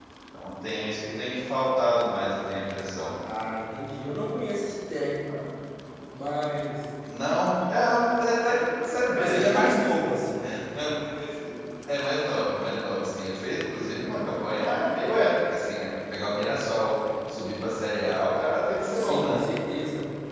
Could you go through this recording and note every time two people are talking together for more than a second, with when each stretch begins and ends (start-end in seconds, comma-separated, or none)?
none